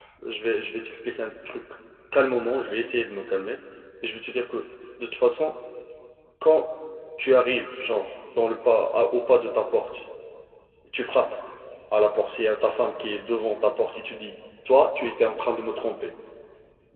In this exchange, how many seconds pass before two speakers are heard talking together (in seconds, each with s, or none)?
none